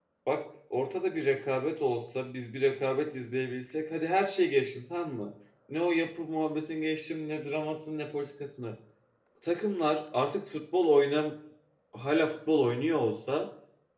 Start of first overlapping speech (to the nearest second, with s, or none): none